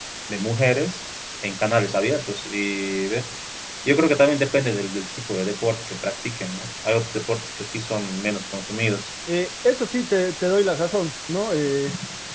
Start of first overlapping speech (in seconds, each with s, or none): none